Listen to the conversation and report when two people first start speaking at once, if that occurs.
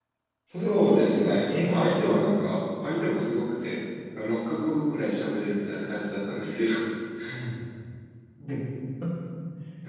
1 s

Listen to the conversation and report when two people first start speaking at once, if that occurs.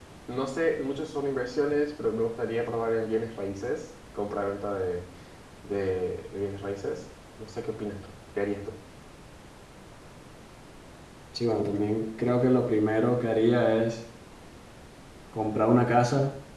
none

